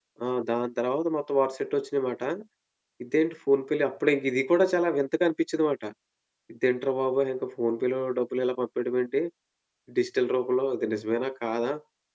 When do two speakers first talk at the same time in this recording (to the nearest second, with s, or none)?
none